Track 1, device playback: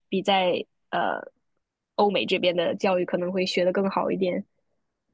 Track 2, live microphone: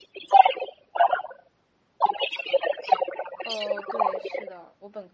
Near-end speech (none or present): present